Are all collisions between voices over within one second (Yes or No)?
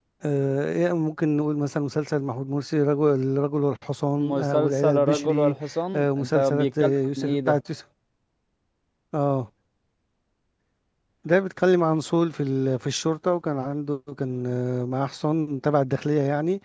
No